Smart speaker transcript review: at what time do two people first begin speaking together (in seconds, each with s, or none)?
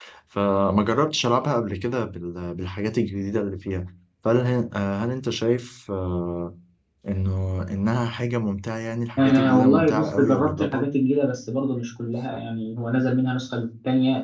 9.2 s